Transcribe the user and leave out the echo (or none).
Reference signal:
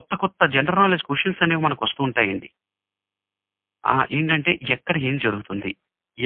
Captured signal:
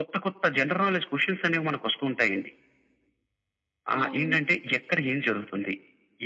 అవును.